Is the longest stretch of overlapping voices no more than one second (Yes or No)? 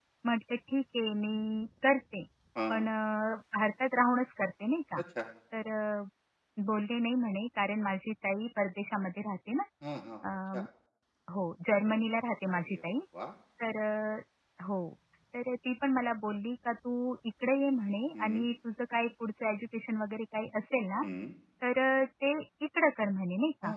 Yes